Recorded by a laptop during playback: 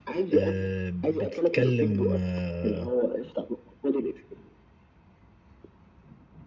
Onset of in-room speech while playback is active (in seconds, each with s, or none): 0.3 s